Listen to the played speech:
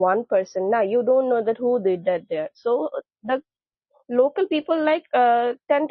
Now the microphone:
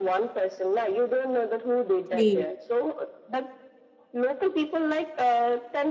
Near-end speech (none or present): present